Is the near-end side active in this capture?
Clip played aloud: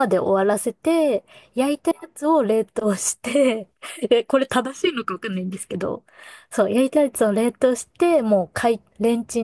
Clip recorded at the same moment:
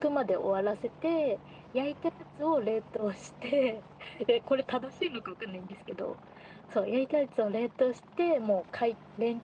No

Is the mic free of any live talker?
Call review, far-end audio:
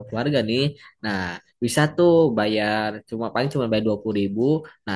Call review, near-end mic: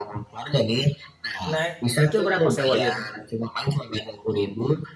No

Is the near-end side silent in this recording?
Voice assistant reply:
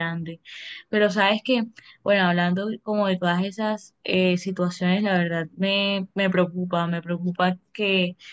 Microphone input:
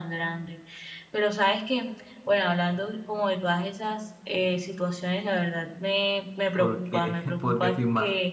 No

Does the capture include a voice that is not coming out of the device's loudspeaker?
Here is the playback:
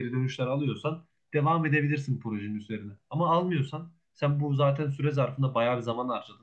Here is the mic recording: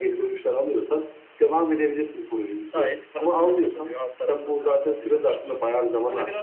Yes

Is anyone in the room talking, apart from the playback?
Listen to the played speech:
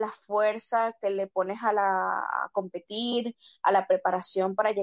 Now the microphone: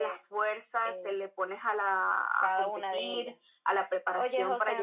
Yes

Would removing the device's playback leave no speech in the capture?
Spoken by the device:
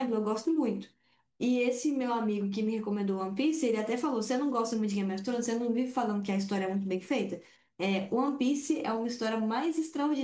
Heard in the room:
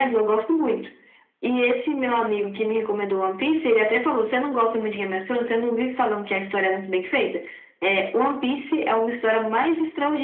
Yes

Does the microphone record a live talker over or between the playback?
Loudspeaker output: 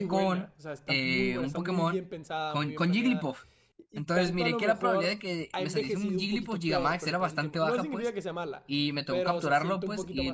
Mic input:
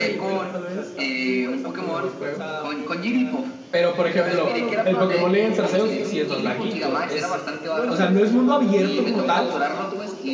Yes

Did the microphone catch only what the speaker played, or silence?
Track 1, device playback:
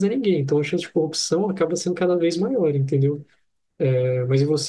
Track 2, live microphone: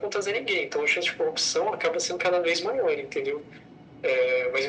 Yes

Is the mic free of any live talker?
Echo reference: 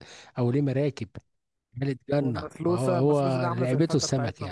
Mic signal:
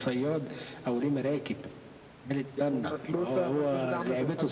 Yes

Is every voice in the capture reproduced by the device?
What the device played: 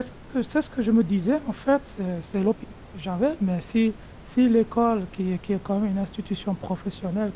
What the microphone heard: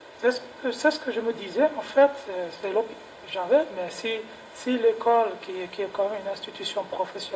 Yes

